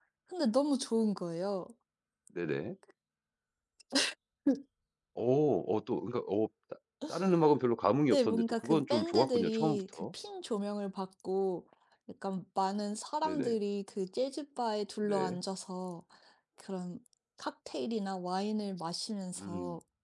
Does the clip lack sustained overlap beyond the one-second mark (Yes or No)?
No